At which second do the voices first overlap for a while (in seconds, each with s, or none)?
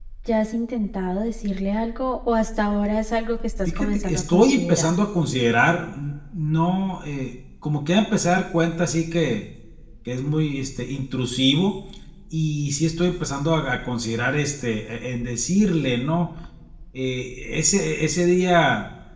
3.6 s